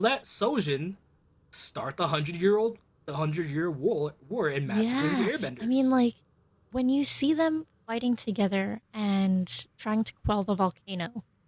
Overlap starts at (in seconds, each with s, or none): 4.7 s